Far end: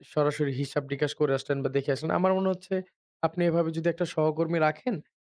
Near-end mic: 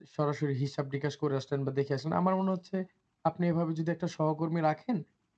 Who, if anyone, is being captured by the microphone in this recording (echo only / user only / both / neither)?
echo only